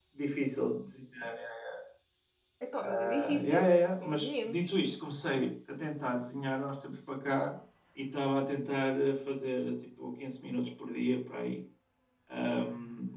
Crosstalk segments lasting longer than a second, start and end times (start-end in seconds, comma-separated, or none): 2.8-4.6